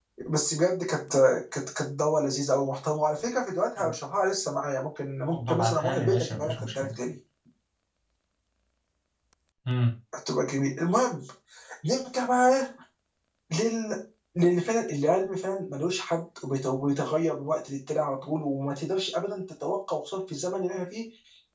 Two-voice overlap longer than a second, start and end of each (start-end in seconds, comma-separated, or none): 5.3-6.9